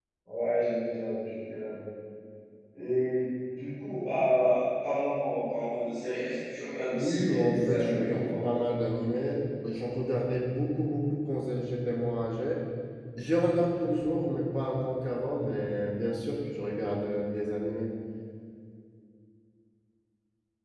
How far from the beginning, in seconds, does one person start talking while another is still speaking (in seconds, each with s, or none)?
6.9 s